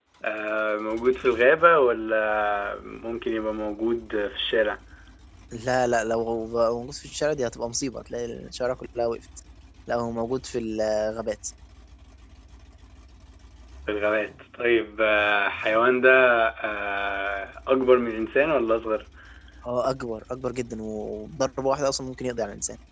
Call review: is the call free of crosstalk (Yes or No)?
Yes